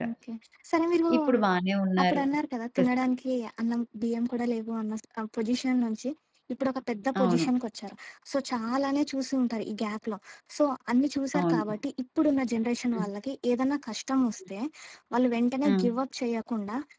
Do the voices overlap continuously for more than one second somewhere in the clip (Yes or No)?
No